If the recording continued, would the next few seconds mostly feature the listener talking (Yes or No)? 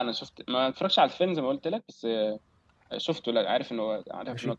Yes